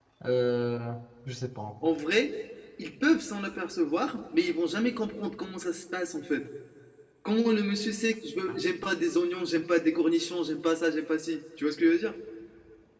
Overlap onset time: none

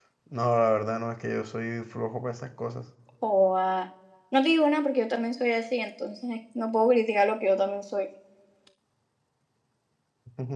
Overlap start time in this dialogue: none

